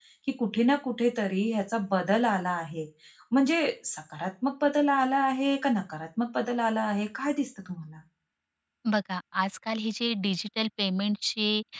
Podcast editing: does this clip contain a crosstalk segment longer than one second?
No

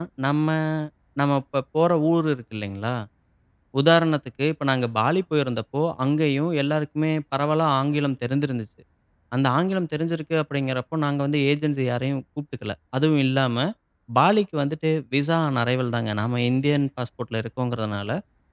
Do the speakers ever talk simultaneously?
No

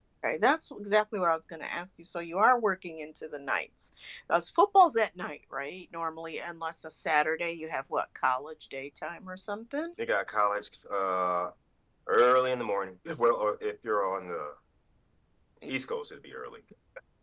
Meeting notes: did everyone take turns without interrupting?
Yes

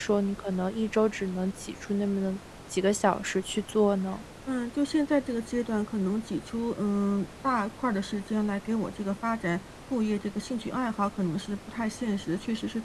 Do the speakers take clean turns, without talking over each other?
Yes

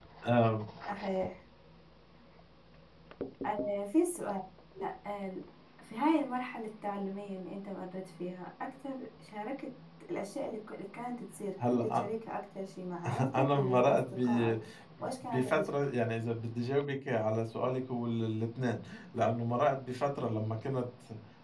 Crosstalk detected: Yes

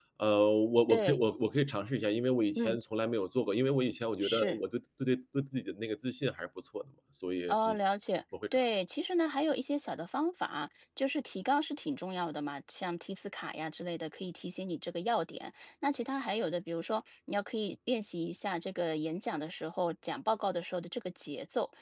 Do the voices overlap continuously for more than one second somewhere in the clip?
No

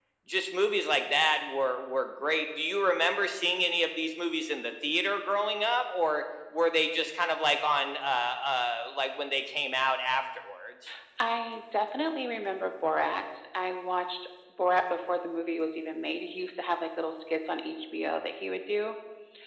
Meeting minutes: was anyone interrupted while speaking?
No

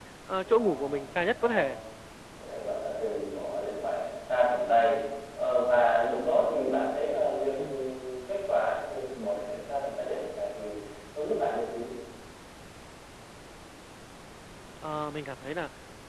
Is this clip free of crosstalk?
No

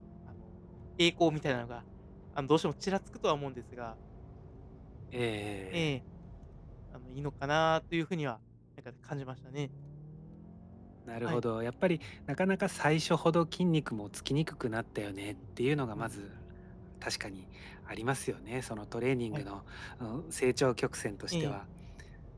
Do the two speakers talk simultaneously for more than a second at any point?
No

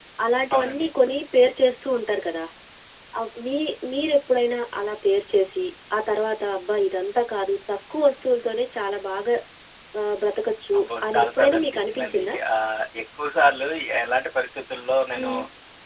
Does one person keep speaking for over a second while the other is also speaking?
Yes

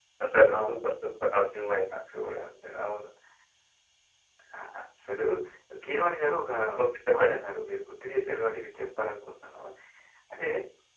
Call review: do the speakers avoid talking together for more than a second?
Yes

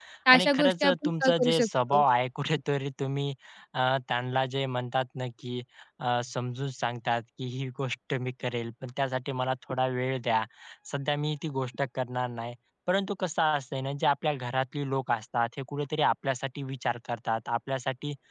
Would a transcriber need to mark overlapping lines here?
Yes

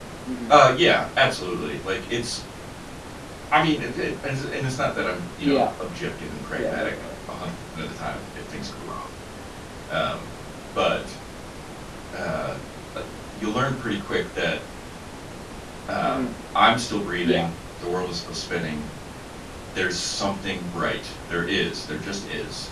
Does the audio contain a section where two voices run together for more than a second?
No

